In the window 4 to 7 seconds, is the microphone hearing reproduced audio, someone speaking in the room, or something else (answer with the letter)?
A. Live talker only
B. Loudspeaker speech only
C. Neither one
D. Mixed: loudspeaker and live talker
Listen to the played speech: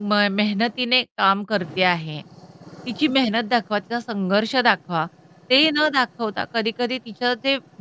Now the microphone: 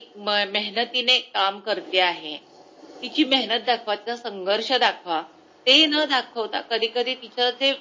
B